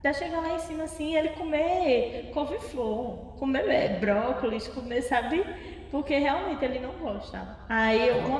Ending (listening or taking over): listening